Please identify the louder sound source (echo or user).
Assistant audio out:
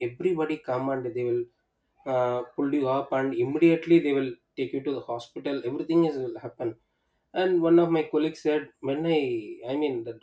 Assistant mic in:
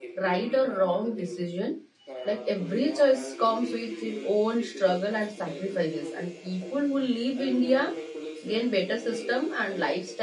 user